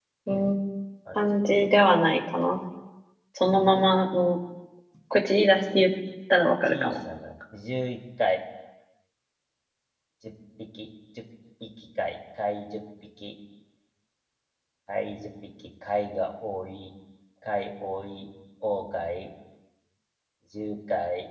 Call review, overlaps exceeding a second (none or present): none